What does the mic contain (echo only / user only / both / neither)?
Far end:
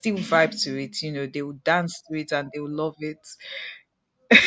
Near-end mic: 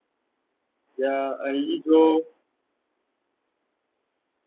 user only